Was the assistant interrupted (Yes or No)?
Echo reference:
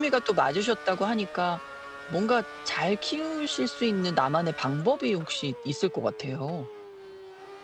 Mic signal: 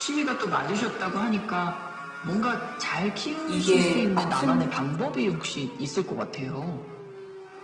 Yes